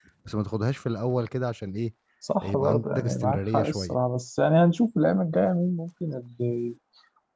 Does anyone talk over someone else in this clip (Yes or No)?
Yes